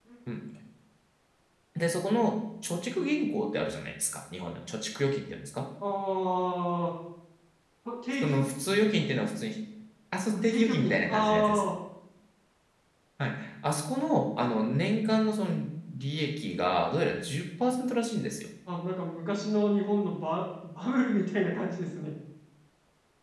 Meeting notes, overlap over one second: present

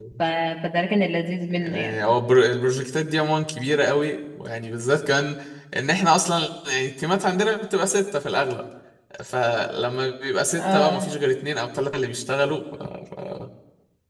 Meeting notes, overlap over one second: none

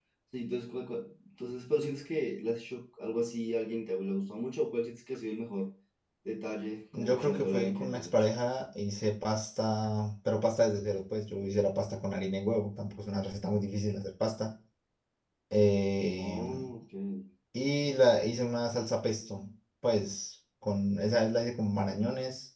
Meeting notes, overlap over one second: present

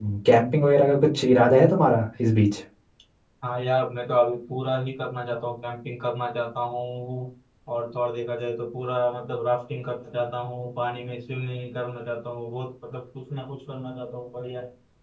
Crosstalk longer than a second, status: none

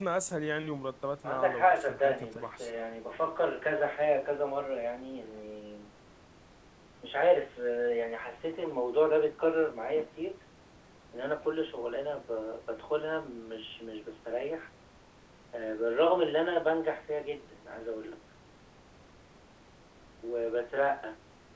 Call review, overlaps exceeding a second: present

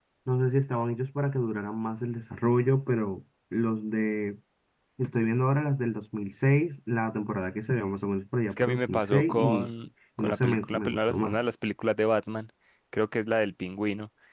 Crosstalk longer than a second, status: present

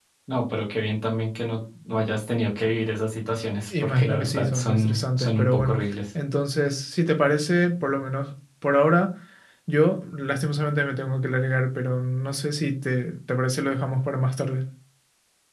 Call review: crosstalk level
present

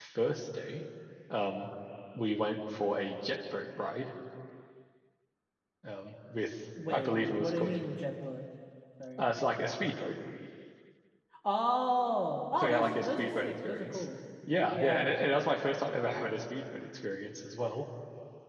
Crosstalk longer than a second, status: present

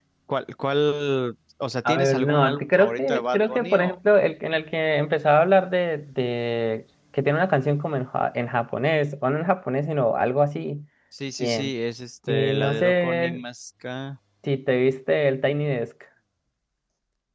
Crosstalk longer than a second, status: present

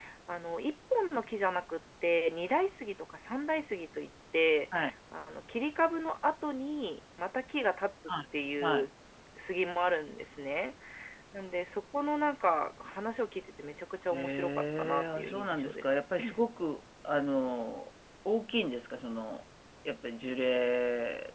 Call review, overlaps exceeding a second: present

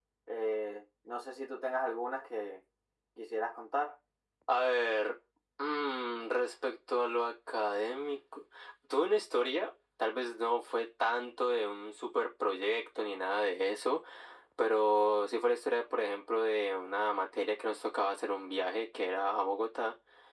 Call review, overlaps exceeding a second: none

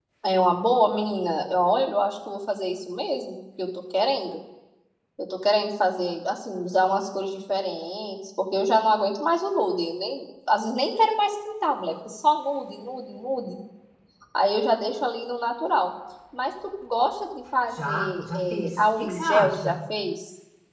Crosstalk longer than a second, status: present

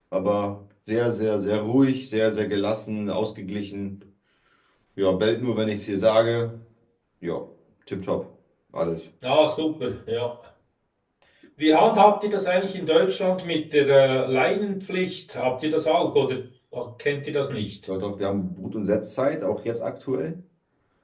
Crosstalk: none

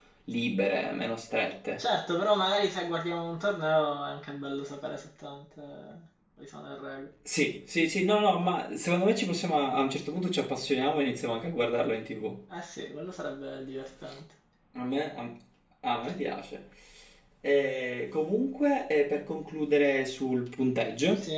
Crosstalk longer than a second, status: none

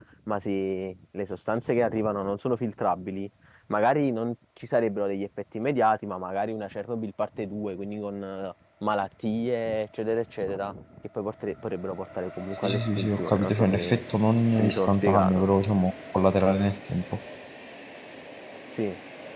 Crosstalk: present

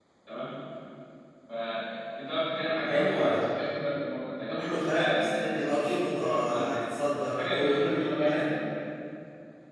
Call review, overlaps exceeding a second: present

